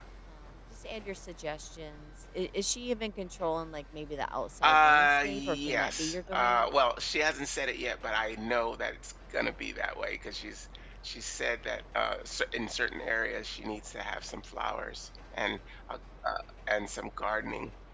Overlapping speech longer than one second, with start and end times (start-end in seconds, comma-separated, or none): 4.6-6.7